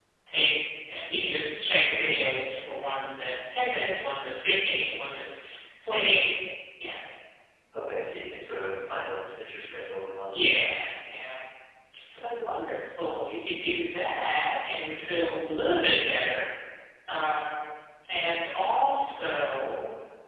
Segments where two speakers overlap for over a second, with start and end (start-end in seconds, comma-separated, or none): none